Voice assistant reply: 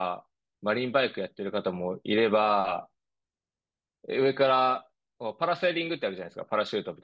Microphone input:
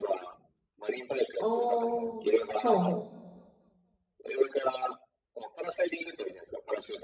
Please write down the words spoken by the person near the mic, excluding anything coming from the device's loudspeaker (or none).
おー、ほうほ